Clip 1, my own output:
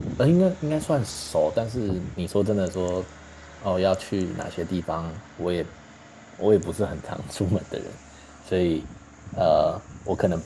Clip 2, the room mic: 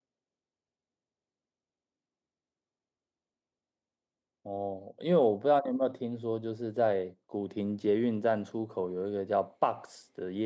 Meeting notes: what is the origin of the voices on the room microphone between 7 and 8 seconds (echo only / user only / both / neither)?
user only